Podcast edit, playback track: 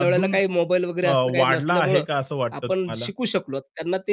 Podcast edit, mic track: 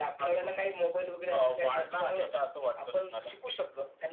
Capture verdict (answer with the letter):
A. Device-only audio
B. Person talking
A